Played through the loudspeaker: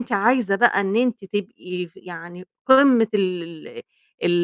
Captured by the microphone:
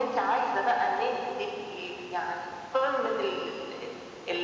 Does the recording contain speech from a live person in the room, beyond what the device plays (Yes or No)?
No